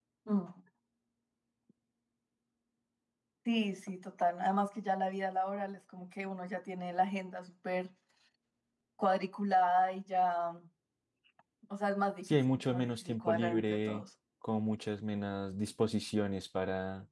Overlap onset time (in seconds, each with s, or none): 12.3 s